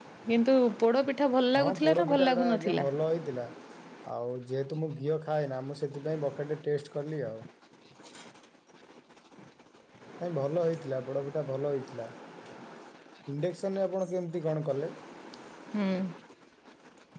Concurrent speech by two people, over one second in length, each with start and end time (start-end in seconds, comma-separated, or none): 1.6-2.9